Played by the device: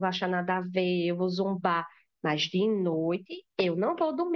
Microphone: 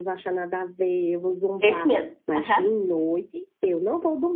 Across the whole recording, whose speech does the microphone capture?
both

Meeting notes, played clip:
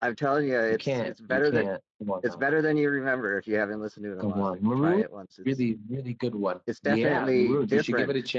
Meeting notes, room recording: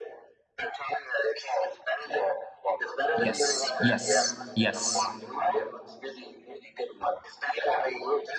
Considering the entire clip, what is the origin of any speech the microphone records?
both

